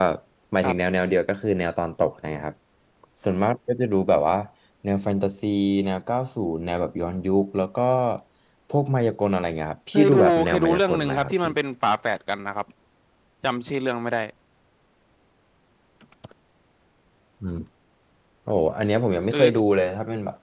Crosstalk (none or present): present